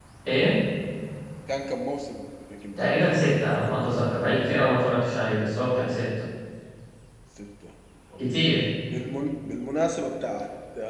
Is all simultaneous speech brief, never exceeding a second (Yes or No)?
Yes